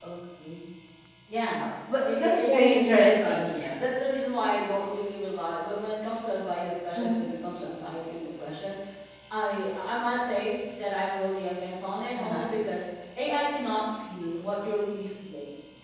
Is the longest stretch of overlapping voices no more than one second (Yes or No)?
No